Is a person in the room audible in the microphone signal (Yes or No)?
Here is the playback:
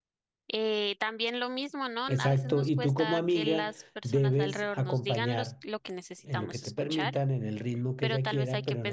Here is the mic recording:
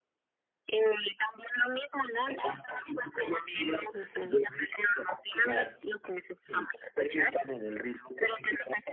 Yes